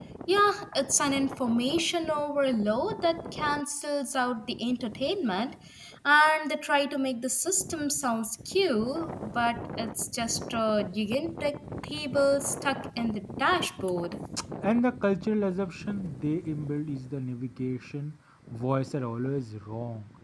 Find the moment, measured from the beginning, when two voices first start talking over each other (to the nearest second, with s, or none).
none